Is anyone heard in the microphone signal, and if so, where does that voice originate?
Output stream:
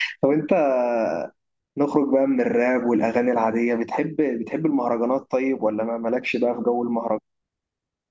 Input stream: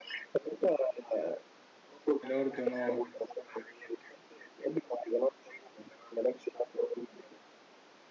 both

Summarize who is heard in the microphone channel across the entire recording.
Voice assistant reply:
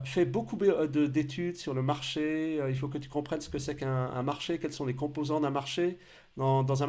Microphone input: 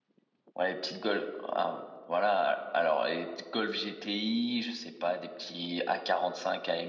user only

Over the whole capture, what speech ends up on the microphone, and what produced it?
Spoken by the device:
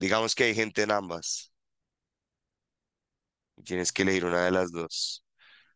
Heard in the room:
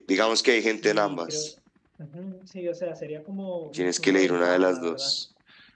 both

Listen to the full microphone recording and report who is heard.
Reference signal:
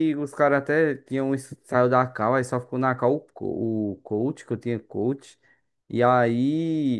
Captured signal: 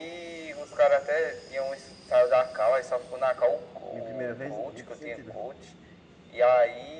both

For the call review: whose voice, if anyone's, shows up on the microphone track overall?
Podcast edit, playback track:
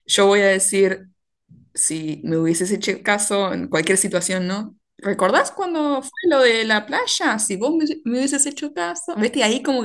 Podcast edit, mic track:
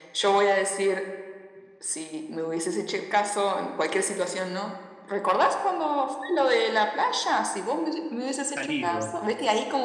both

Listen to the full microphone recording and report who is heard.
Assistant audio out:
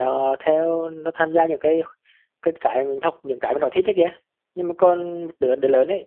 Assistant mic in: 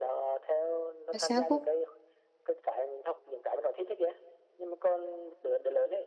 both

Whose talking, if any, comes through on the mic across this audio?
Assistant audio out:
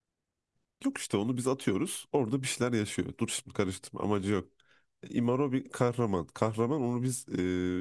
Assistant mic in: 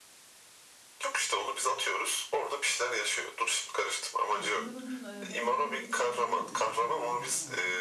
both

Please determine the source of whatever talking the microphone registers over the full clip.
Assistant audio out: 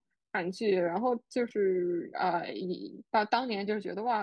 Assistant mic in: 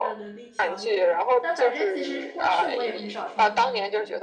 both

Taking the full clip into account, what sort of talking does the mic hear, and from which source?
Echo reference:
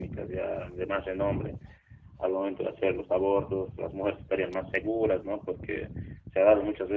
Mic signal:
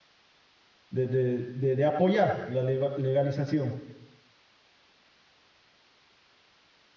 user only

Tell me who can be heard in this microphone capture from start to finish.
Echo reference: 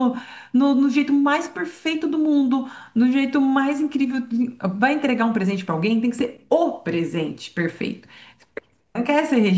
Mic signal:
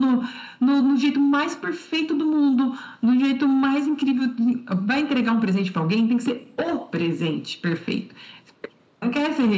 echo only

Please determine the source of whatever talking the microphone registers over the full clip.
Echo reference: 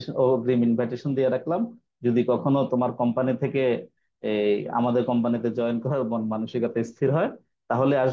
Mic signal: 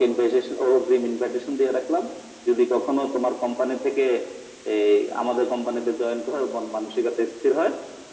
echo only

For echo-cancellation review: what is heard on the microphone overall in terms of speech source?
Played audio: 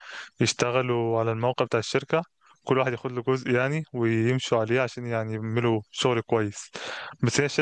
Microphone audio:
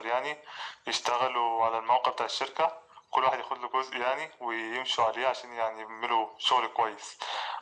echo only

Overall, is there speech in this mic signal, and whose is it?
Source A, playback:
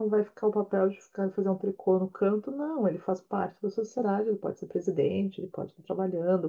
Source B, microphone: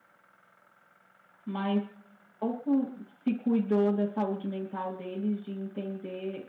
user only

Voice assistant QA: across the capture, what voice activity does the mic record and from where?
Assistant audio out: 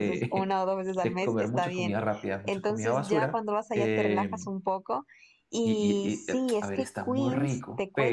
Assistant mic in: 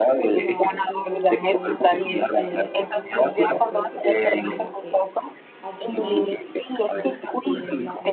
both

